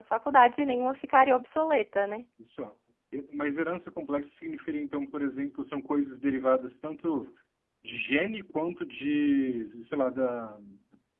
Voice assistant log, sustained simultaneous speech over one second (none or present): none